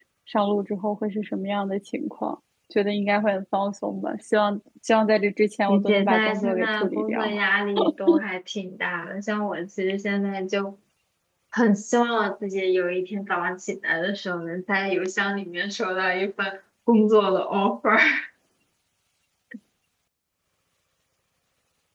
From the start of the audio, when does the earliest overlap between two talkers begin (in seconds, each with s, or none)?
5.7 s